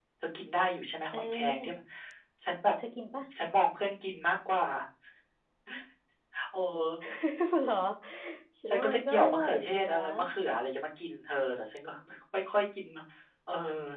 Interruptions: present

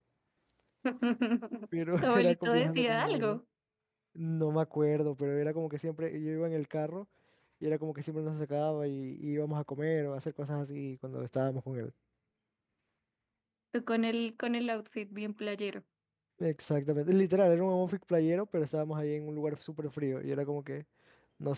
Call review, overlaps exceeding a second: present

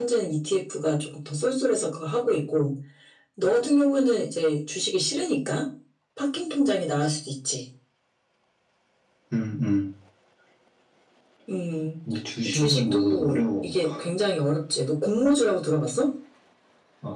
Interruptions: present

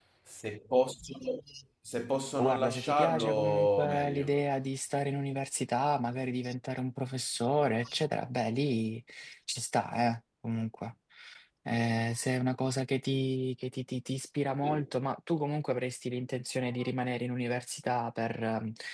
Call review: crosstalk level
present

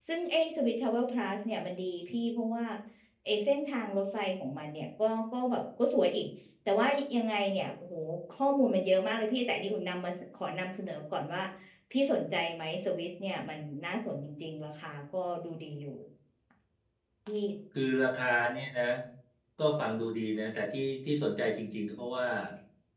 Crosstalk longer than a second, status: none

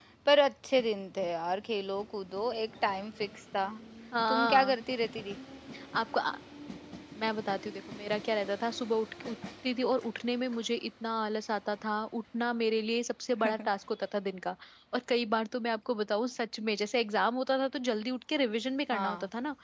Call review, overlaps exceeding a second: none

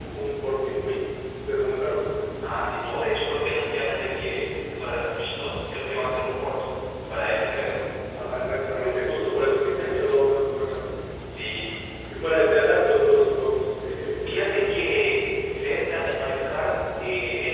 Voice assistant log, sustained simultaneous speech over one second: none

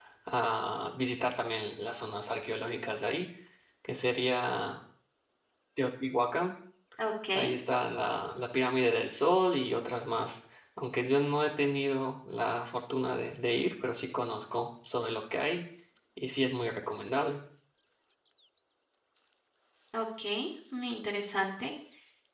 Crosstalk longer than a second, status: none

